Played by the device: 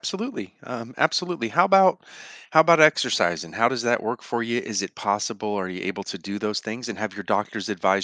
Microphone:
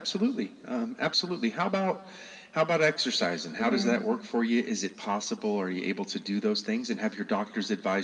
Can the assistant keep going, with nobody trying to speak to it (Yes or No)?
No